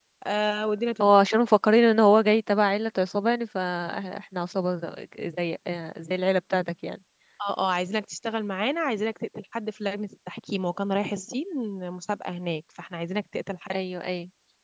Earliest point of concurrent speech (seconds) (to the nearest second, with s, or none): none